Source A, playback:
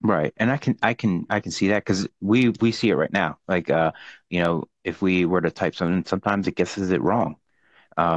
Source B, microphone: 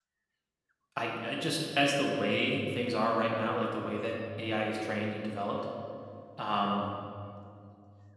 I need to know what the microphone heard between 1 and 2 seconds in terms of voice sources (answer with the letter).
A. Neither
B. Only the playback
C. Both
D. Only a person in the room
D